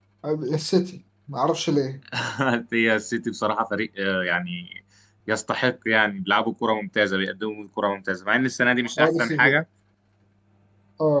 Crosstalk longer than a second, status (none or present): none